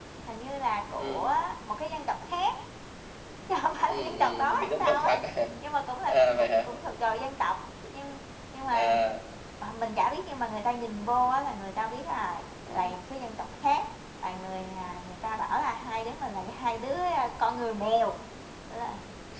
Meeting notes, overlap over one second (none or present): present